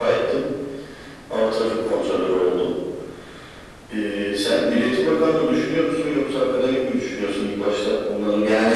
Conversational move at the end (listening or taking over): taking over